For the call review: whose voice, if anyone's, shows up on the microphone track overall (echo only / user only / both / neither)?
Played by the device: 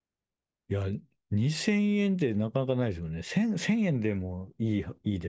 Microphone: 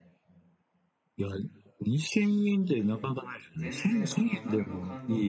both